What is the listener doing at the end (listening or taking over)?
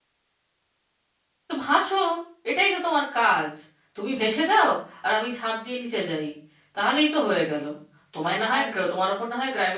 listening